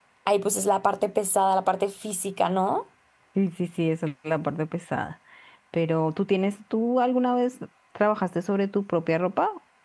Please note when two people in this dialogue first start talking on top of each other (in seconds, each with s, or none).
none